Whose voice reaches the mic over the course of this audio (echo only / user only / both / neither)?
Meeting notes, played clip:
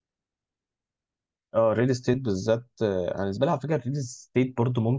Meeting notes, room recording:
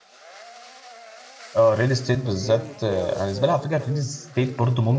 both